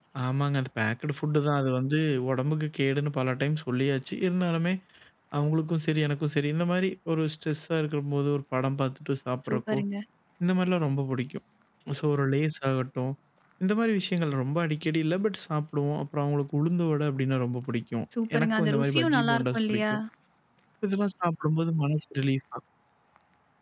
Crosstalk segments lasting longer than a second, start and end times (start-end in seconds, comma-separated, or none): 18.3-19.9